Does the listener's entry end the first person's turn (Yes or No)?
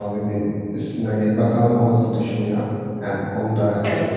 Yes